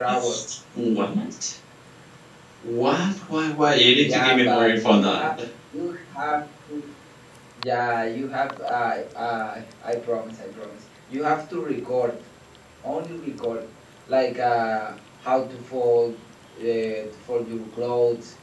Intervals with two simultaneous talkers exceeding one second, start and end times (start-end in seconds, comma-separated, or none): 3.9-5.3